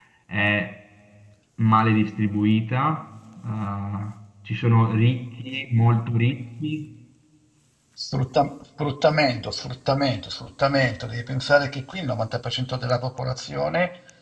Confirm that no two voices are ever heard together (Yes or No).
Yes